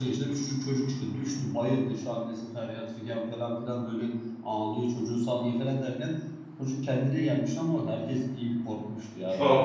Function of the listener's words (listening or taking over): taking over